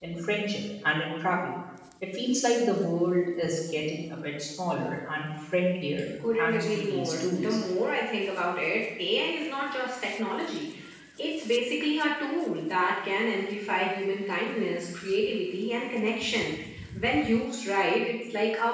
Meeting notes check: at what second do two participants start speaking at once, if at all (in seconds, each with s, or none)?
6.2 s